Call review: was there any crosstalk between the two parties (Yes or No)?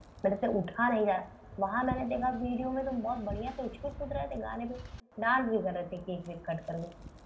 No